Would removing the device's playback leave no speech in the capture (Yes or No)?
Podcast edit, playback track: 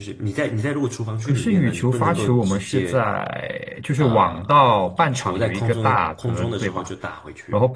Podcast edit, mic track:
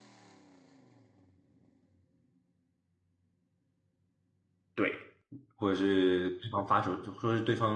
No